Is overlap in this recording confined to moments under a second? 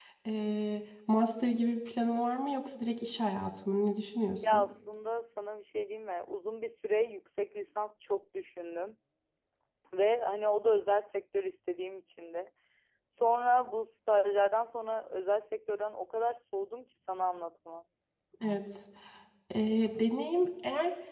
Yes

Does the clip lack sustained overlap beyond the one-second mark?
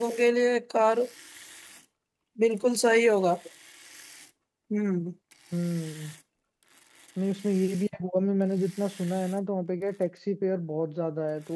Yes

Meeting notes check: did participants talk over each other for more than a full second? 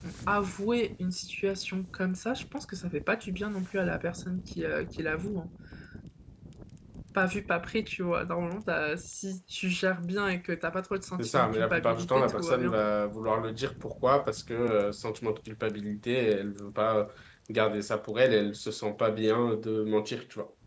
Yes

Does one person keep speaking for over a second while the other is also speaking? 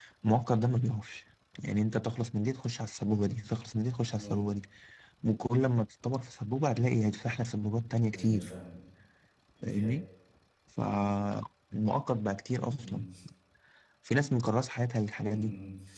No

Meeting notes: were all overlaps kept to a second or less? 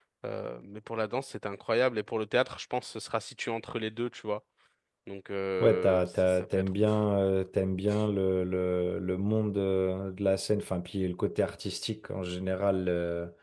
No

